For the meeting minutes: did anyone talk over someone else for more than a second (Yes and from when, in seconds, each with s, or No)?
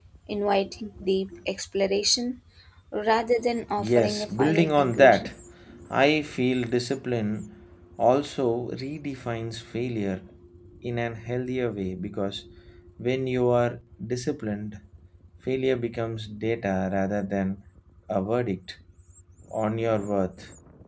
Yes, from 3.8 s